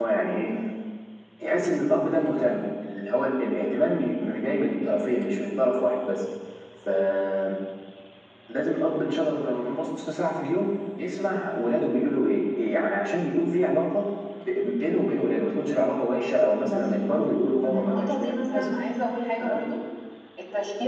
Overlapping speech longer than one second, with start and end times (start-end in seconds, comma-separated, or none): 16.6-18.7